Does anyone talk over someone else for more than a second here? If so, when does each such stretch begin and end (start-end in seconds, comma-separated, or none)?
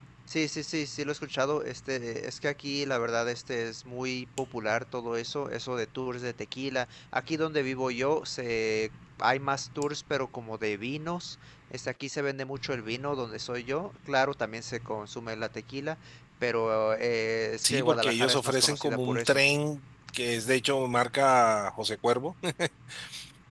17.6-19.4